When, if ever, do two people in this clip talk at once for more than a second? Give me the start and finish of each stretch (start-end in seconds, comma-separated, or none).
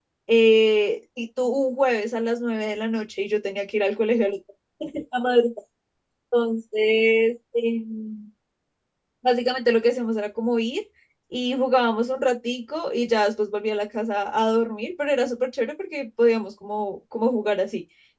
none